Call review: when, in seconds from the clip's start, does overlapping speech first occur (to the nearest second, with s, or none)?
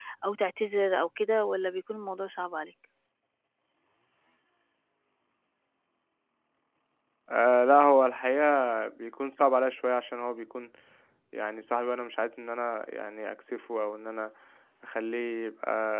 none